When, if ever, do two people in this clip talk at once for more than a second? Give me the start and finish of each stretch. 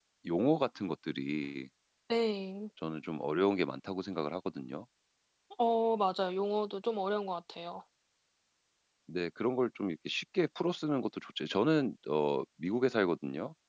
none

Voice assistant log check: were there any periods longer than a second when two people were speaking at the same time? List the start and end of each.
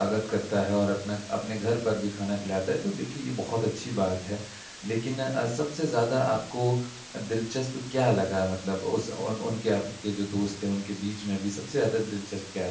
none

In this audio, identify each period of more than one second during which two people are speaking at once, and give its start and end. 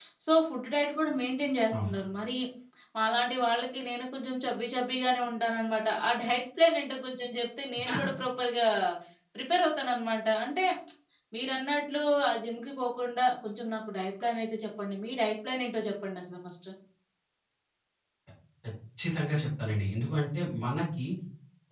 none

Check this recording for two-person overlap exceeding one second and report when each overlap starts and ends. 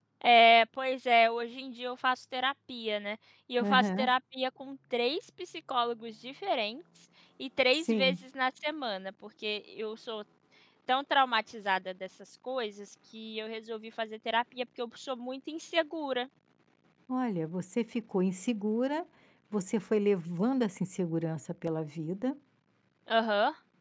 none

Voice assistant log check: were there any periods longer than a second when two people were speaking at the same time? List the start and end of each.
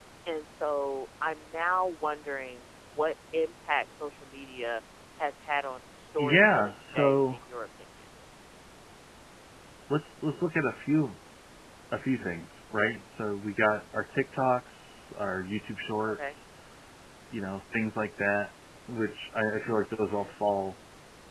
6.2-7.4

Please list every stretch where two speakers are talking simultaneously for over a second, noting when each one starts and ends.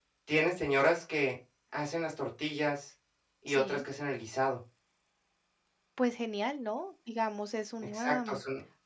none

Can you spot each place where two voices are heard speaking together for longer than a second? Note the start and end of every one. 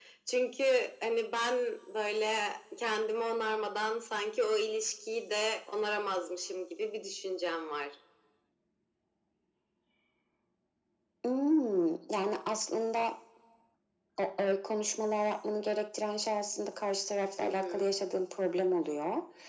none

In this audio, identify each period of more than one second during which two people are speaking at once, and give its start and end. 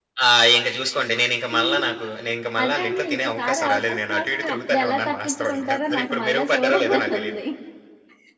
2.6-7.4

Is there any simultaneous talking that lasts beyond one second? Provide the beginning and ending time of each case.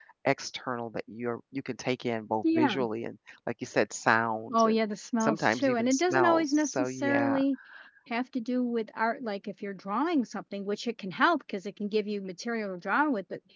5.2-7.4

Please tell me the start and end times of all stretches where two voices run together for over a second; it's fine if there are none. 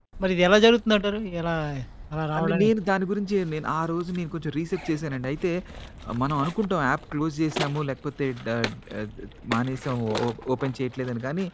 none

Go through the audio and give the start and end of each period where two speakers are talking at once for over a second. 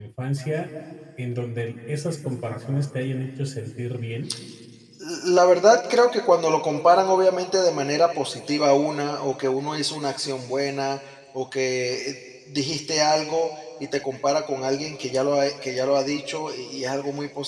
none

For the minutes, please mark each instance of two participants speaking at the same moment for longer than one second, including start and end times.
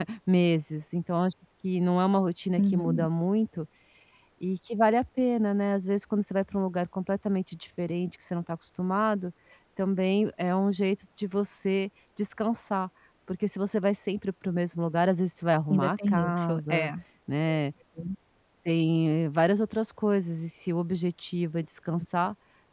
15.7-16.9

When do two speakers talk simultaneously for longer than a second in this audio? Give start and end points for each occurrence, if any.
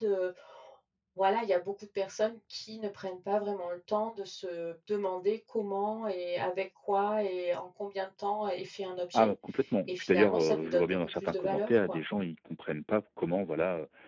9.9-12.0

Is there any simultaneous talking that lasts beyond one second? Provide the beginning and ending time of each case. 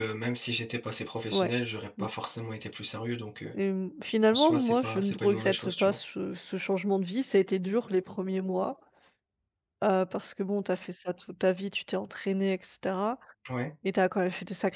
4.3-6.0

